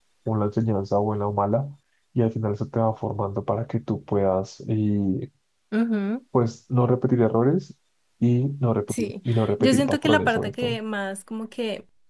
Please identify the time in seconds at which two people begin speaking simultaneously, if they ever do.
8.9 s

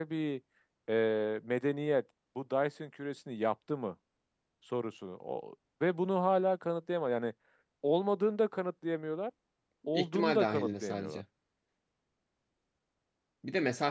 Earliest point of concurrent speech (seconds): 9.9 s

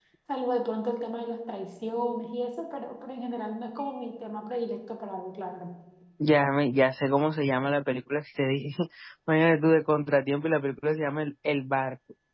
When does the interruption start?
none

